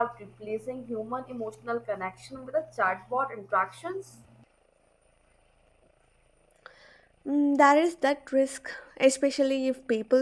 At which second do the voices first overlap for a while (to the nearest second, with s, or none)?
none